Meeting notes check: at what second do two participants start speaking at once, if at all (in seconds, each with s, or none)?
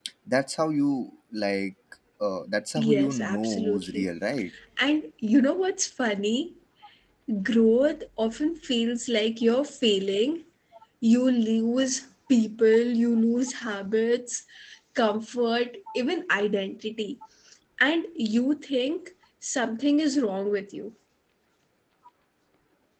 2.8 s